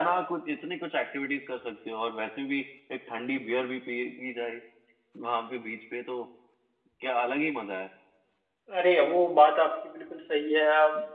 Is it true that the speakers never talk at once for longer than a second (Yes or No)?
Yes